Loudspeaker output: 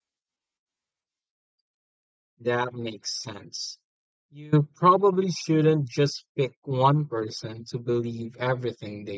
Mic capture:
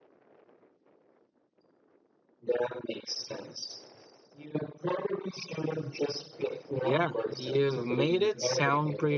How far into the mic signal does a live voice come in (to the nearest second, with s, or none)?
7 s